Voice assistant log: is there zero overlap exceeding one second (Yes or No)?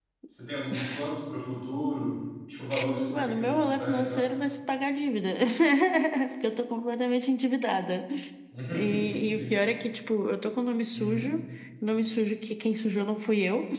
No